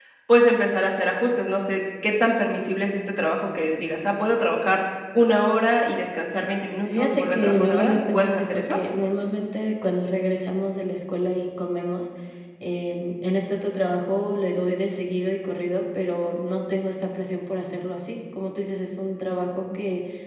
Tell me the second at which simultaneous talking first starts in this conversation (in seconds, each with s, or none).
6.8 s